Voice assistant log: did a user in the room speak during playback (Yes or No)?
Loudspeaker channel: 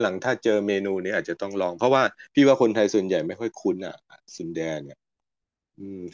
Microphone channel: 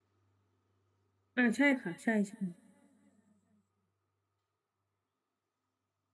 Yes